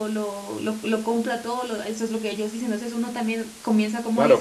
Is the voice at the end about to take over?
Yes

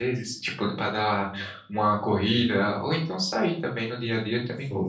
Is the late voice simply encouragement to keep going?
No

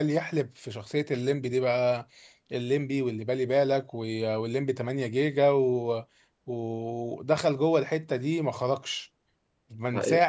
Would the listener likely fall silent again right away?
Yes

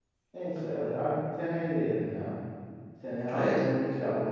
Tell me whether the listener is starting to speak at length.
No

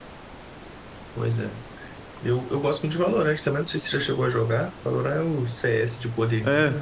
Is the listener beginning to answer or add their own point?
Yes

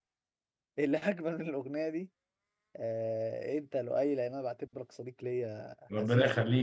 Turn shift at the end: Yes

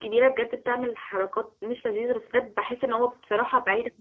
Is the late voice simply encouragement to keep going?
Yes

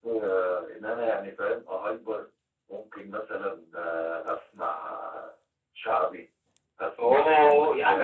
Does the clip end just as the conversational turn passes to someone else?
Yes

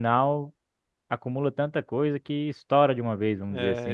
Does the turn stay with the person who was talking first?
No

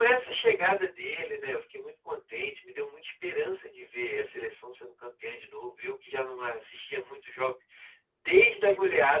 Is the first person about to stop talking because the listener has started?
No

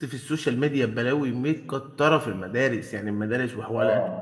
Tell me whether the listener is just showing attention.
No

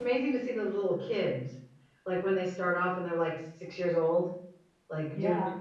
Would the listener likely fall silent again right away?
Yes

